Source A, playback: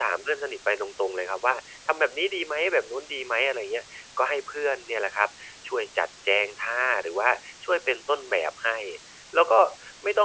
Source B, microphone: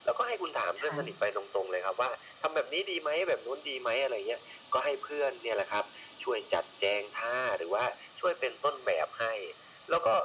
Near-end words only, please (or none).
ค่ะ